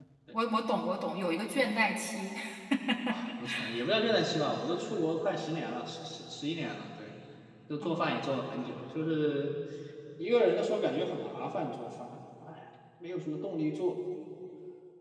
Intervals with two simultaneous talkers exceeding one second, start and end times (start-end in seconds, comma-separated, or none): none